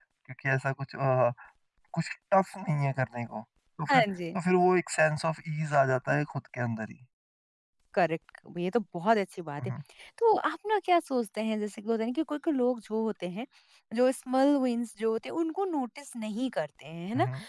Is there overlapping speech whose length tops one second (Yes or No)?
No